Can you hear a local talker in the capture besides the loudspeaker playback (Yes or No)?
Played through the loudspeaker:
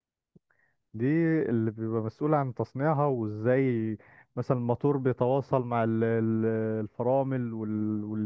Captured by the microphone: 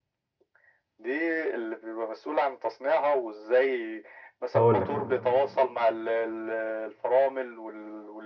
Yes